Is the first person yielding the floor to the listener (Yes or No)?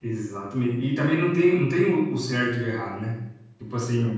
No